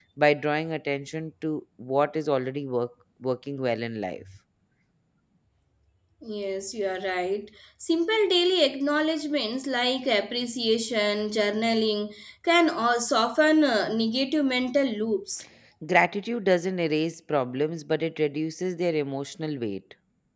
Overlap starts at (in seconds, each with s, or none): none